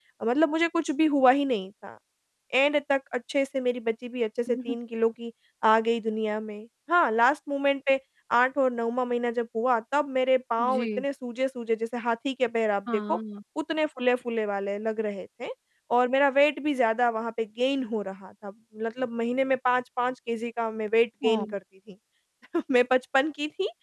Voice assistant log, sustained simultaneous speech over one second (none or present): none